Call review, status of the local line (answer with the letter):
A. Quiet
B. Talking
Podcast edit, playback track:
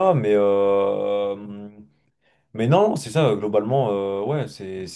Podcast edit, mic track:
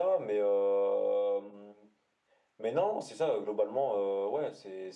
A